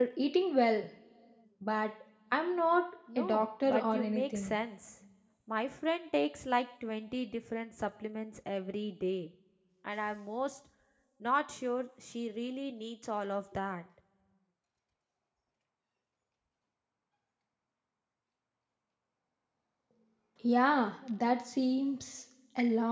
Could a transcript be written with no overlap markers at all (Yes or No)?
No